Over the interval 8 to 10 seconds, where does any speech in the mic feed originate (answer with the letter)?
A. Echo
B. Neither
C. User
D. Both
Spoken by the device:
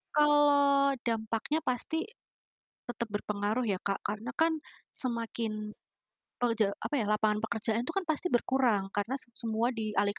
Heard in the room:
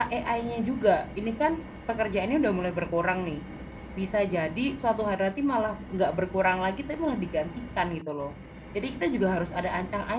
C